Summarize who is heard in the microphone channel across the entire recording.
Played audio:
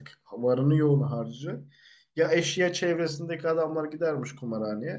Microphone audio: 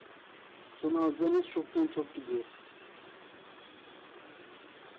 user only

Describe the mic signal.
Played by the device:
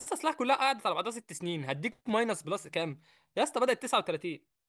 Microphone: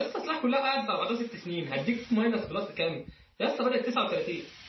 echo only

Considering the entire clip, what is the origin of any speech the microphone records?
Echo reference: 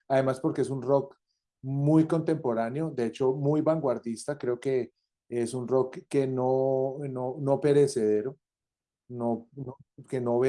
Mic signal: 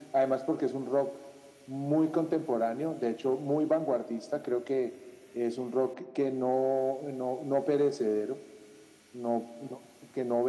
echo only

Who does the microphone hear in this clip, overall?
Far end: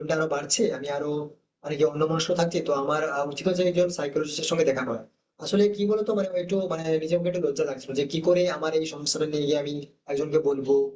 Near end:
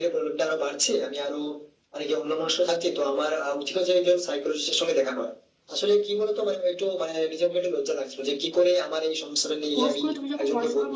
both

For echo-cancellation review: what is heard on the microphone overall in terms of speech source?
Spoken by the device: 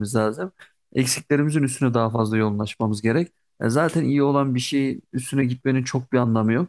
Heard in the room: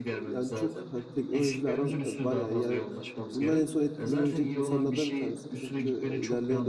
both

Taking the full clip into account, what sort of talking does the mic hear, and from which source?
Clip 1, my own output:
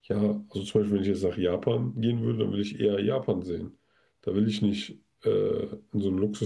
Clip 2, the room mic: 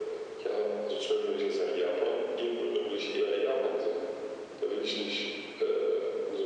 echo only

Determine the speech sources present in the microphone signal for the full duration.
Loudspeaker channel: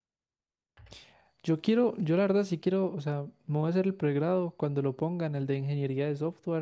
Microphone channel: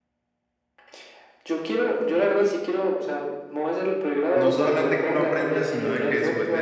both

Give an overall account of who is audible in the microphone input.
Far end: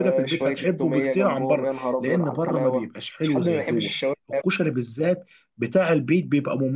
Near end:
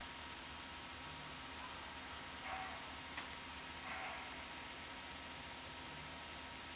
neither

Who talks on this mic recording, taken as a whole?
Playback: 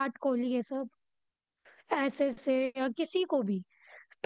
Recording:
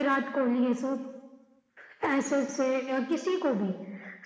echo only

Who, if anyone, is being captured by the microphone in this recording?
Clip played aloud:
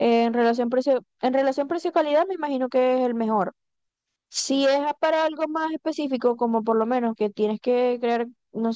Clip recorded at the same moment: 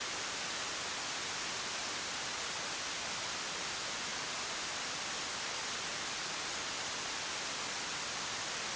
neither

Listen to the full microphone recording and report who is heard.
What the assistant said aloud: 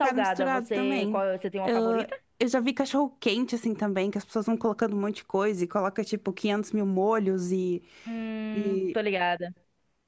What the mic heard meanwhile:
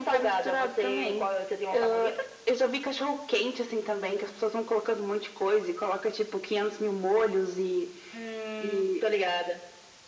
echo only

